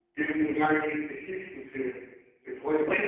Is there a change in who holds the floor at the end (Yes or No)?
Yes